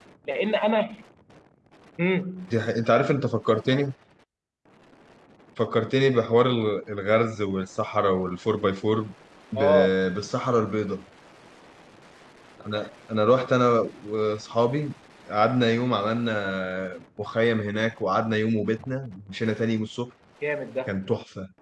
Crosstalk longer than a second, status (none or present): none